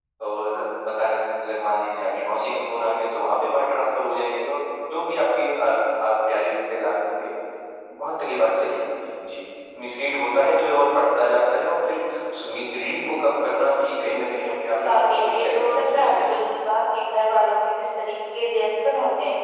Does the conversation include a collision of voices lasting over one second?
Yes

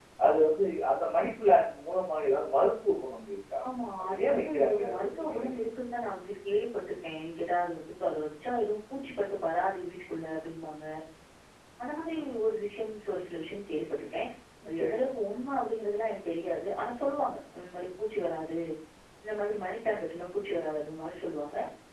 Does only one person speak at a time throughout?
No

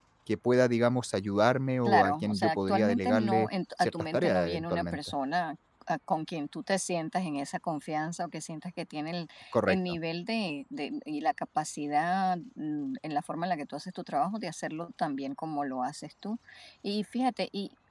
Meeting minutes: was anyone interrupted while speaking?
Yes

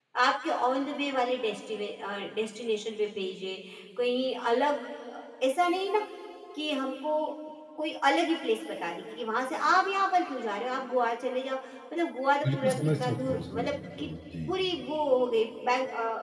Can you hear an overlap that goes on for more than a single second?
Yes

